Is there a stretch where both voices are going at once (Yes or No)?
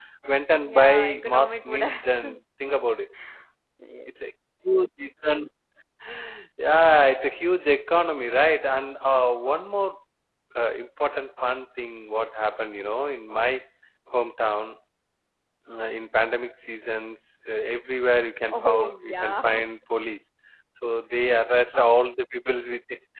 Yes